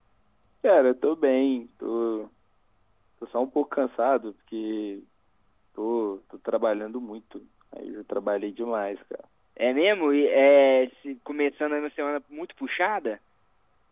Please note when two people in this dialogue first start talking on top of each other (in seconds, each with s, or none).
none